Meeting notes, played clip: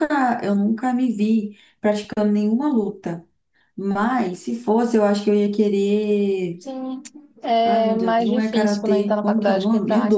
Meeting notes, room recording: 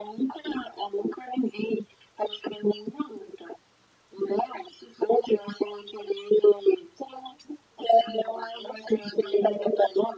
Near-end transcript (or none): none